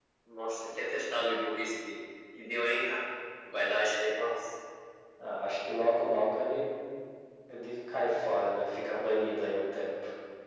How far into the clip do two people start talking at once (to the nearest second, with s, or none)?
none